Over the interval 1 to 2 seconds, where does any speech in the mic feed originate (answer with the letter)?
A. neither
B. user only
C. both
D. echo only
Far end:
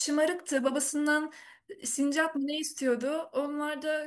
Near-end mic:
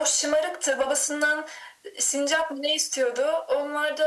D